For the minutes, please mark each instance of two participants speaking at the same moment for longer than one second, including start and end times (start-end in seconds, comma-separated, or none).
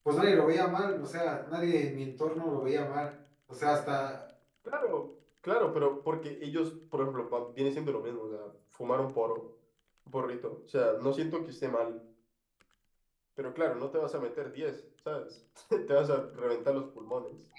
none